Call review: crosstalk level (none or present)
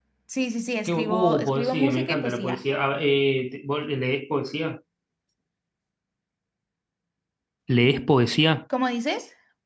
present